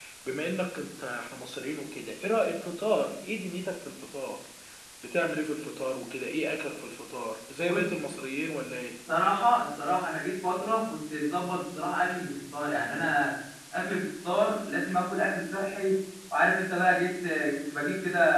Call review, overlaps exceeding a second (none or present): none